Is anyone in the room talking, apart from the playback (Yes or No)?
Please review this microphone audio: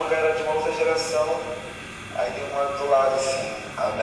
No